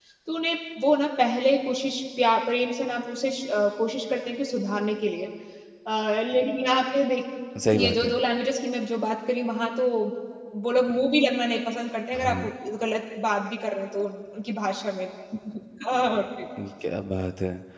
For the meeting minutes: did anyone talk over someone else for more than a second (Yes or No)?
No